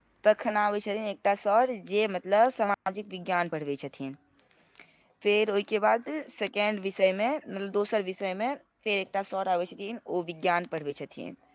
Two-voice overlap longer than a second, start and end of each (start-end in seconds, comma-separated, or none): none